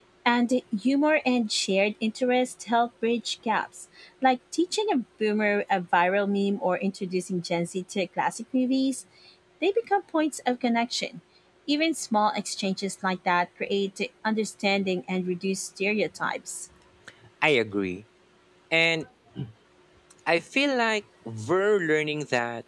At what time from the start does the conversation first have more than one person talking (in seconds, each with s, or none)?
none